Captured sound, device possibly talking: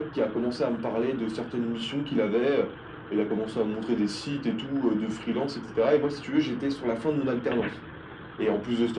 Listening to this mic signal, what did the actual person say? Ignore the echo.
none

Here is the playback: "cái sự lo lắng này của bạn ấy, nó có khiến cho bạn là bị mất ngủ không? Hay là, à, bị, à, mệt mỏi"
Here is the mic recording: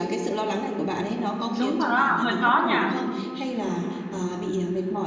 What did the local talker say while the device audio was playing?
Đúng rồi đó, hơi khó nha.

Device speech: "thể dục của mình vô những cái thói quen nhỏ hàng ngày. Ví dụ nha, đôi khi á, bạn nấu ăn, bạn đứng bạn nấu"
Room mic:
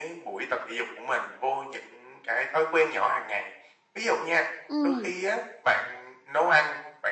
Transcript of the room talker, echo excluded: Ừm,

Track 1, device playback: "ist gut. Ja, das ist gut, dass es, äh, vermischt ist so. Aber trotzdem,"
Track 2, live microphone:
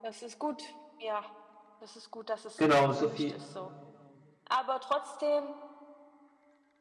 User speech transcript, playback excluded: genau, so viel

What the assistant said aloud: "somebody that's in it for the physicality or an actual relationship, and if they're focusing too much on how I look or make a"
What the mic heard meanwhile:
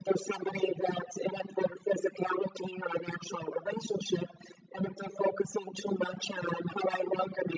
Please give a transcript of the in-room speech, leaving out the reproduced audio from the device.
none

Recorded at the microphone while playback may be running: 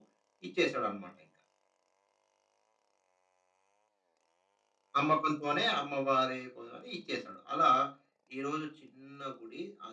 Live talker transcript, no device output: none

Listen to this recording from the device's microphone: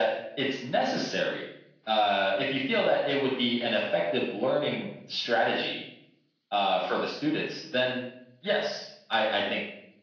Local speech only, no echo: none

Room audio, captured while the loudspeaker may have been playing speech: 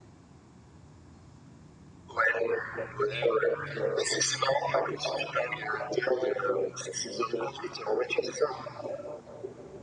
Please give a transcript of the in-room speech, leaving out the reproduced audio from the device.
none

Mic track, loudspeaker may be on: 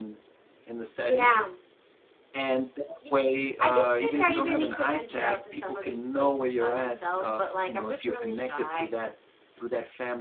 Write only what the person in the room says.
none

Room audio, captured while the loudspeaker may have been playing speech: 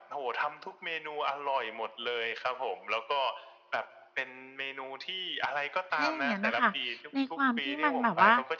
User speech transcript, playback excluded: ถ้าอย่างงั้นน่ะค่ะในความที่มันแบบว่า

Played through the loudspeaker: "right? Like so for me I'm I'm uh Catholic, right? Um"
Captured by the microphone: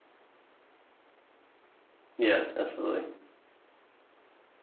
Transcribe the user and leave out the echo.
Yeah, absolutely.

